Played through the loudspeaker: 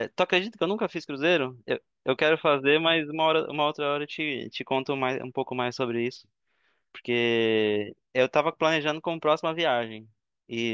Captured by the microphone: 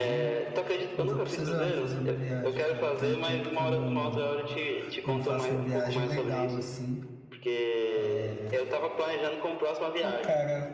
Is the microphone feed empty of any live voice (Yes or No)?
No